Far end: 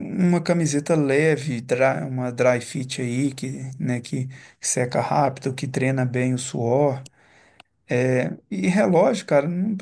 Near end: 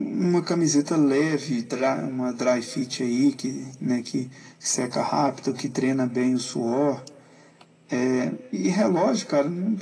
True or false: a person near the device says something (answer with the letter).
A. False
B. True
A